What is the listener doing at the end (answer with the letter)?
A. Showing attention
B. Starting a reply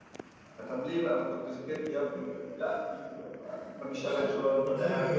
B